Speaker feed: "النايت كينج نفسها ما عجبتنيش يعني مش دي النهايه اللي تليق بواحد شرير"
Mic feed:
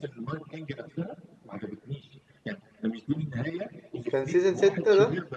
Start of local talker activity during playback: 4.1 s

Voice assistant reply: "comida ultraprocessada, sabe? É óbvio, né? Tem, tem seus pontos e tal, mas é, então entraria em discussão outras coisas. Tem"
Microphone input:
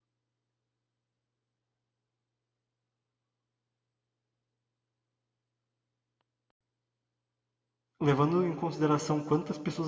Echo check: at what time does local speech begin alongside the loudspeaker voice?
8.0 s

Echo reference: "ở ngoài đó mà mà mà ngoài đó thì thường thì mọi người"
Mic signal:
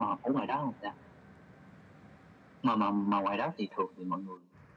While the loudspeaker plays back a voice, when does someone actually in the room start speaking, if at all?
none

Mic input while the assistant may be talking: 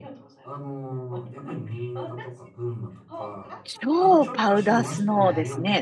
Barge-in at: 3.6 s

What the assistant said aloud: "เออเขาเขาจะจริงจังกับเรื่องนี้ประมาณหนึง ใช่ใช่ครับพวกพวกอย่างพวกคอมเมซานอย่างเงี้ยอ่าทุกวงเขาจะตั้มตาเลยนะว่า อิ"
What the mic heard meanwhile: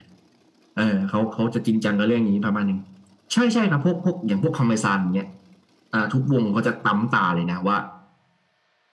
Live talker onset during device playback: none

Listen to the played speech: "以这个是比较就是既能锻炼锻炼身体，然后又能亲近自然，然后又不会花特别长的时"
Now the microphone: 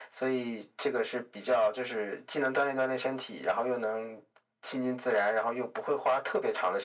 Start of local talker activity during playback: none

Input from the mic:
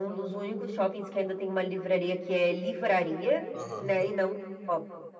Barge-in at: 3.5 s

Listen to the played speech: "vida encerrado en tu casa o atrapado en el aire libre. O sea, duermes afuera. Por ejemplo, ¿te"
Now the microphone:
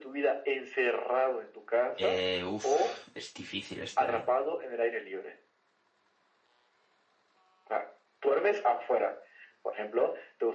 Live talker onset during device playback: 2.0 s

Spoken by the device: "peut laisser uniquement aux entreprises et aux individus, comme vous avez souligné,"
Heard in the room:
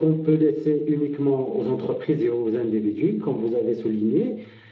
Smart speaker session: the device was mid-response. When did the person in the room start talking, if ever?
none

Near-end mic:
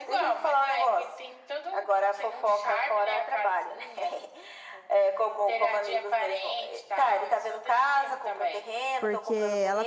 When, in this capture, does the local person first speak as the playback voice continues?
9.0 s

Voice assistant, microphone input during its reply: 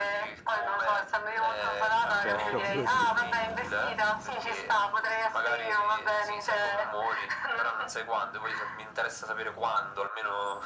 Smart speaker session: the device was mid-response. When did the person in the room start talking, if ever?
2.2 s

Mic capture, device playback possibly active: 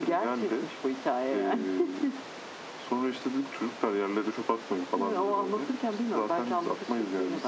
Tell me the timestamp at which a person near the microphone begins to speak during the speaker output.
none

